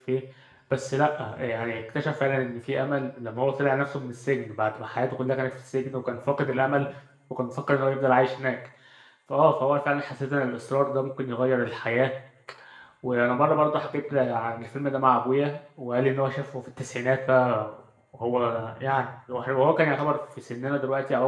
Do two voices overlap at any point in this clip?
No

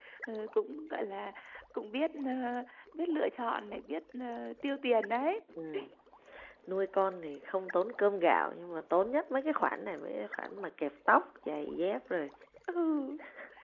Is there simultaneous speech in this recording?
No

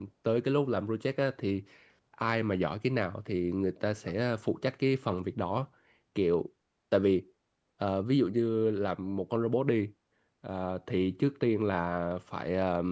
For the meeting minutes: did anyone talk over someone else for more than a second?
No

